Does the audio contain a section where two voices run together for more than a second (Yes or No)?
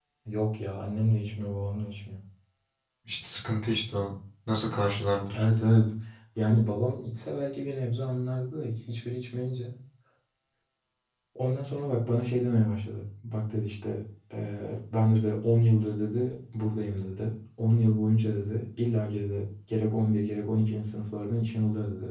No